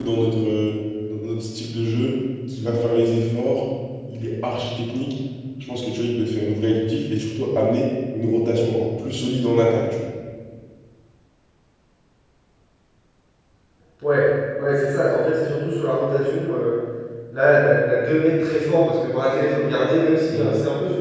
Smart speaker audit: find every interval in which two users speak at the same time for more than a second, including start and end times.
none

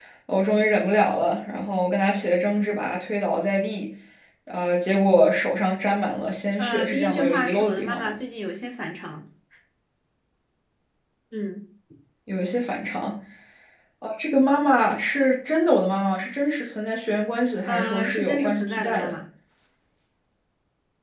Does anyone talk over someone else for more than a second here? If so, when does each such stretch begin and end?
6.6-8.2, 17.6-19.2

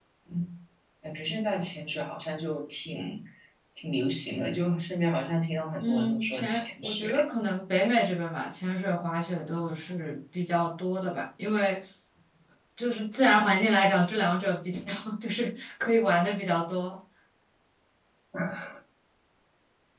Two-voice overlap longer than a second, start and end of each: 5.8-7.1

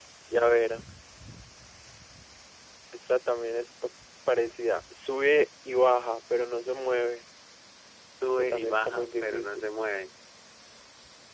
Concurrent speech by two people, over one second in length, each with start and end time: 8.3-9.7

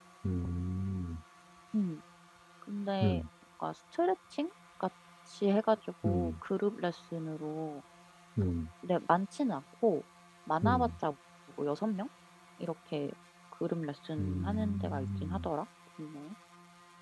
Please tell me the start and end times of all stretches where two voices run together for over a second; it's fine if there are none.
14.2-15.5

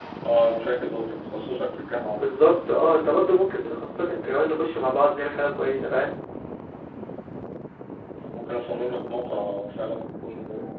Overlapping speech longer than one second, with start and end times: none

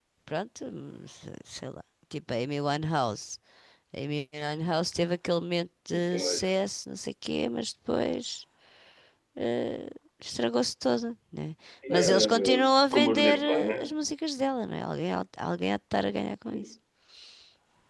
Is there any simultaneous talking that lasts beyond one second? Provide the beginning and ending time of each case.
11.9-13.8

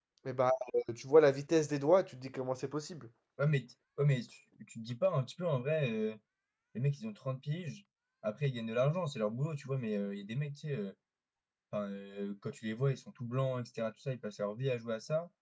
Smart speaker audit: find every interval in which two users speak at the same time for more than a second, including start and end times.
none

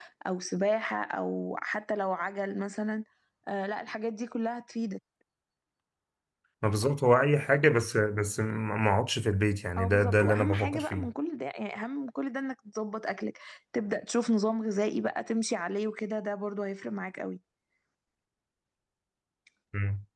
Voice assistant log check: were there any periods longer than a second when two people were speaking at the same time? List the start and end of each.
9.8-11.1

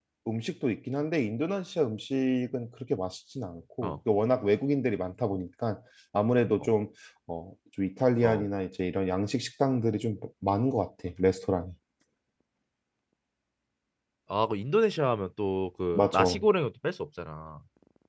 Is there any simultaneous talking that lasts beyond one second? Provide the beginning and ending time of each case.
none

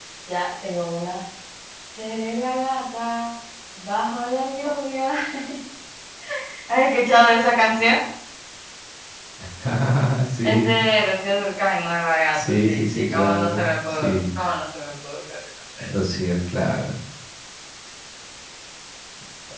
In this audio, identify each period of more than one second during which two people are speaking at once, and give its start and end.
12.3-14.2

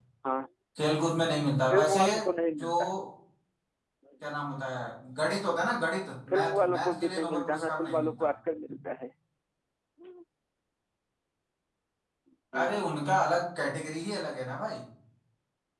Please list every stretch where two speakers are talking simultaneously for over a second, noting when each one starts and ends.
6.3-8.3

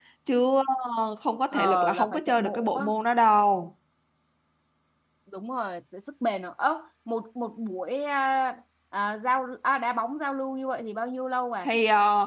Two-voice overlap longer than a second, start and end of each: 1.5-2.9

